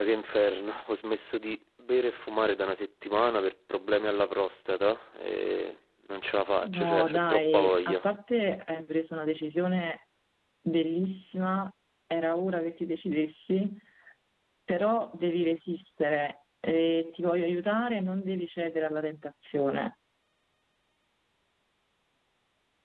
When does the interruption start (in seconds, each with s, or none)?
6.6 s